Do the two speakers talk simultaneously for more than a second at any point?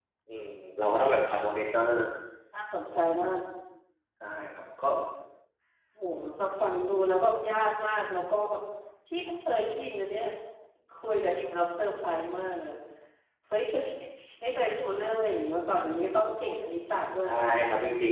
No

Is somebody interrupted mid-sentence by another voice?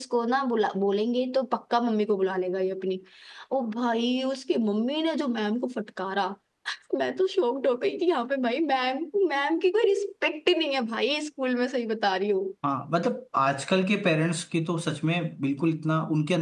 No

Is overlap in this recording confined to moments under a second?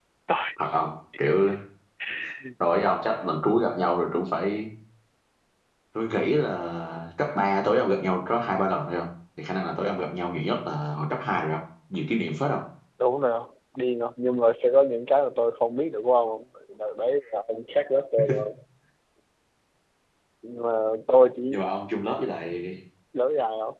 Yes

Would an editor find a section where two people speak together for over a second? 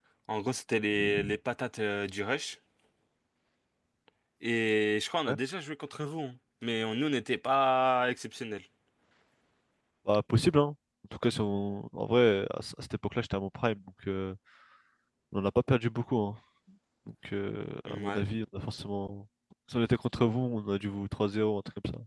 No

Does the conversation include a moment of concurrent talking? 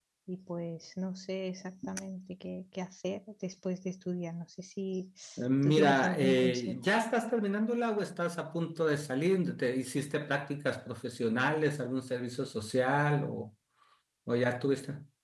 Yes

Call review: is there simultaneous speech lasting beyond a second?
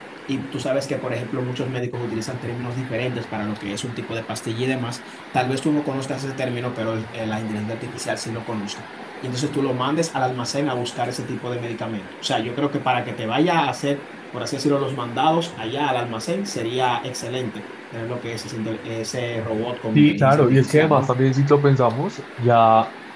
Yes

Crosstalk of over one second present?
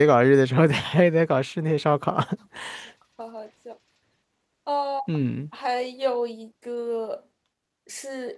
No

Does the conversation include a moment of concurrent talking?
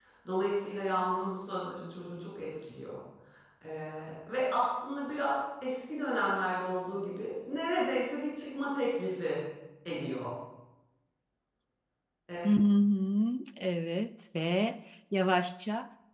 No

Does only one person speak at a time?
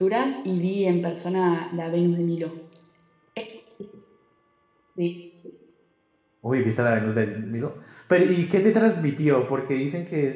Yes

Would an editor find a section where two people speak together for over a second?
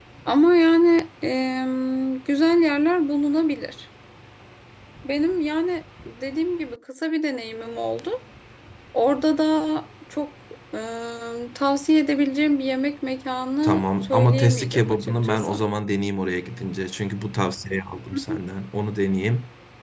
Yes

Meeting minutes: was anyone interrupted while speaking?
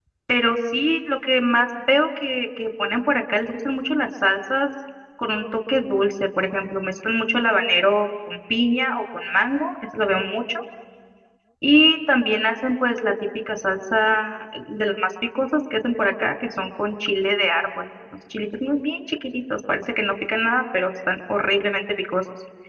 No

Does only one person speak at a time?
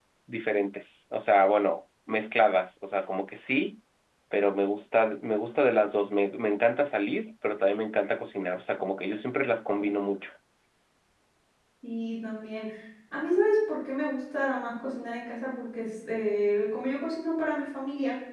Yes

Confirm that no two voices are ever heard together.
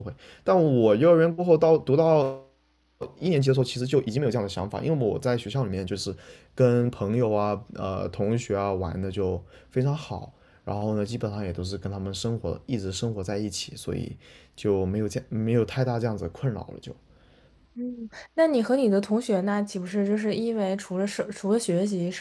Yes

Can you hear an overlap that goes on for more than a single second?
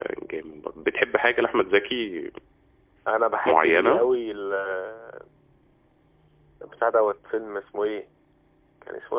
No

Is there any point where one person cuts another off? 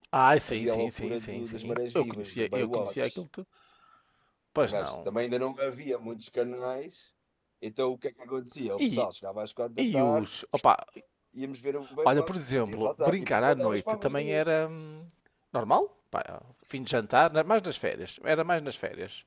Yes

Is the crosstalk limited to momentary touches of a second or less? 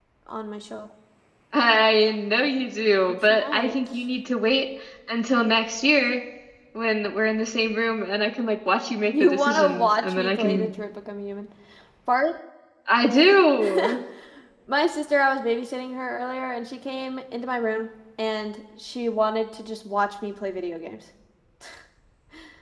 No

